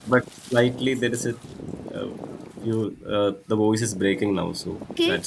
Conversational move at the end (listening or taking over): taking over